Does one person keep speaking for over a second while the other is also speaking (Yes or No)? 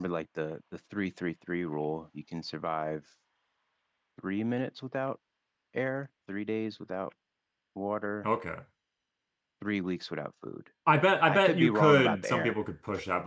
Yes